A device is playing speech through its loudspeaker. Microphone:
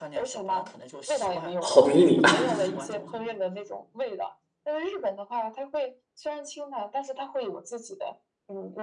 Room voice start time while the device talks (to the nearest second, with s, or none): 2 s